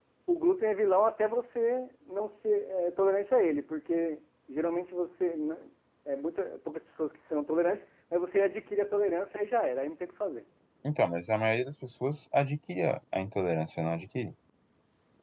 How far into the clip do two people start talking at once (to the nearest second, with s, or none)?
none